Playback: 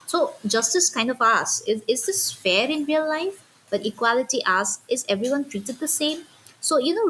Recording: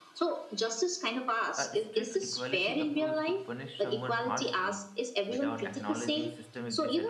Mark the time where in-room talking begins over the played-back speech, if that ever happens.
2 s

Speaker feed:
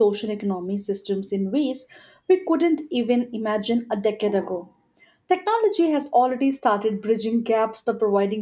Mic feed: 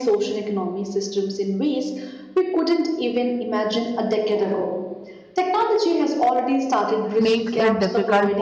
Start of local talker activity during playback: 7 s

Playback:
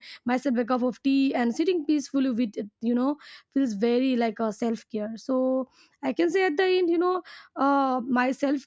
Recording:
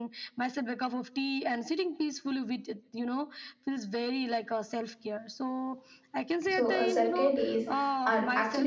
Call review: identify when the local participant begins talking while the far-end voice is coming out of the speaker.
6 s

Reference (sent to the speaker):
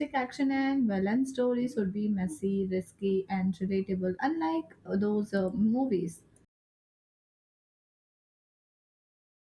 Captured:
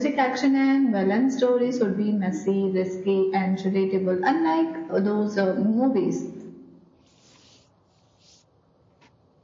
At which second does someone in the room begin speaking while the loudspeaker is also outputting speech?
none

